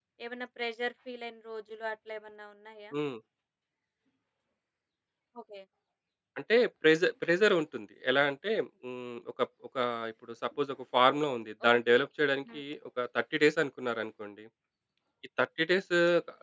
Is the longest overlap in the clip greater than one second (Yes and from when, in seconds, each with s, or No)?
No